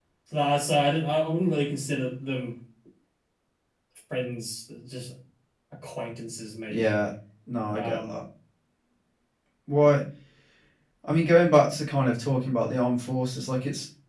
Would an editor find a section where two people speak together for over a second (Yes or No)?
No